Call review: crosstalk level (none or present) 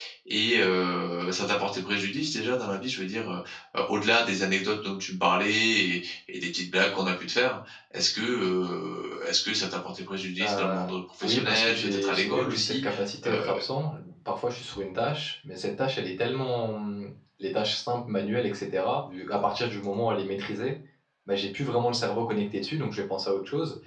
present